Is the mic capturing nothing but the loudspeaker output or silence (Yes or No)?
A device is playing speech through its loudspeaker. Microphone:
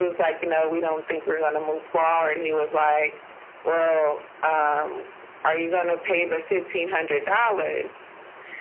Yes